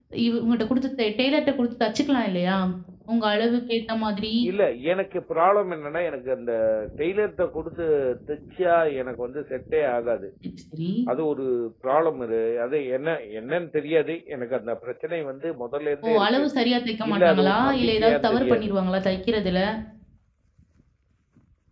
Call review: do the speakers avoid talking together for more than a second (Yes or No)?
No